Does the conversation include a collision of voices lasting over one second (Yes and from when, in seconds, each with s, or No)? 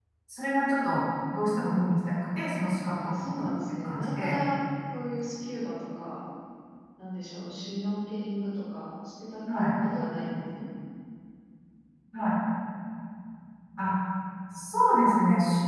Yes, from 3.0 s